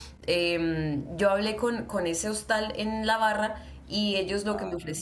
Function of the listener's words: listening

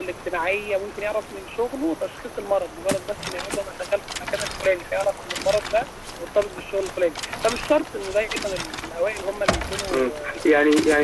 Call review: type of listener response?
taking over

